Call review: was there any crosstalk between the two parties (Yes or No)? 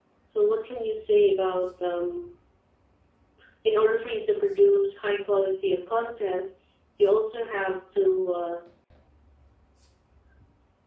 No